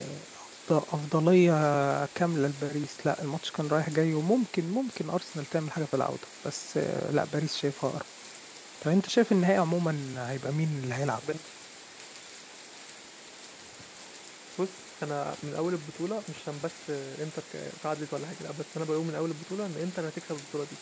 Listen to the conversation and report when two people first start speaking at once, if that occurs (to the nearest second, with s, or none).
none